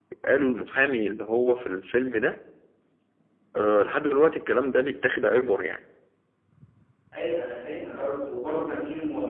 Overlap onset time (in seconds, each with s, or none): none